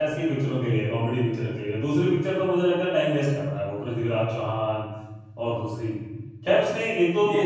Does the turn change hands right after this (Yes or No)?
No